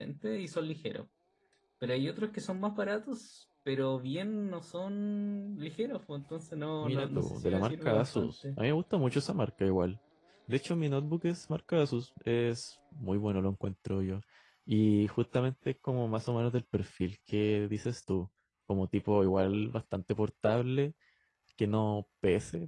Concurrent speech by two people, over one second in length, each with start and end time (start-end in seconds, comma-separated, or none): 6.8-8.6